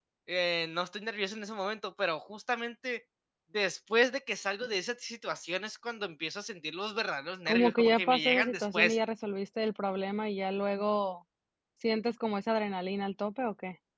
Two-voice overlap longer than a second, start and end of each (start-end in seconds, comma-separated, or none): 7.5-9.0